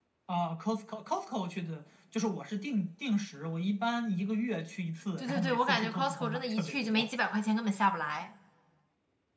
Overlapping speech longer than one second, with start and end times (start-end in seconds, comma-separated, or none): 5.2-7.1